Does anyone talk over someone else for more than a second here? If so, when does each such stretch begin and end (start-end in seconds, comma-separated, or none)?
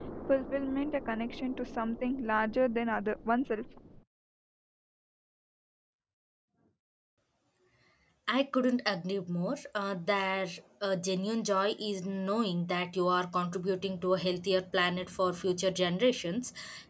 none